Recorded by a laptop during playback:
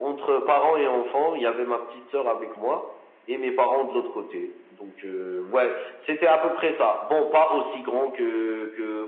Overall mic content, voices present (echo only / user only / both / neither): echo only